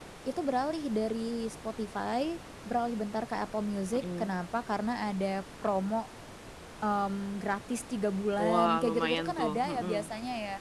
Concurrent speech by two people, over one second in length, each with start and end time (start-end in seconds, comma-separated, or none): 8.4-10.1